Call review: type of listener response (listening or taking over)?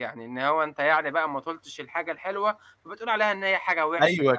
taking over